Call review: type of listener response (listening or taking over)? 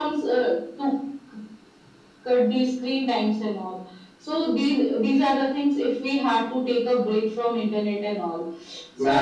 taking over